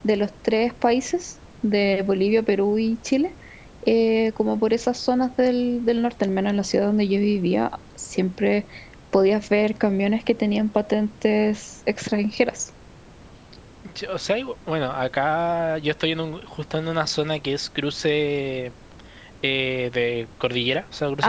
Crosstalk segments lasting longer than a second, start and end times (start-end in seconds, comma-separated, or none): none